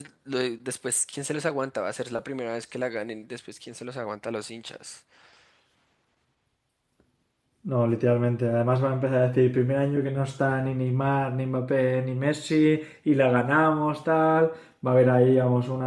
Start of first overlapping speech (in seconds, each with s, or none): none